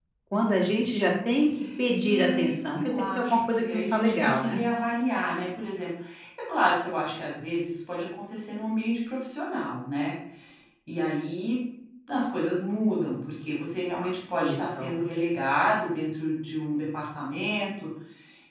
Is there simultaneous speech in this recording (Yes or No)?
Yes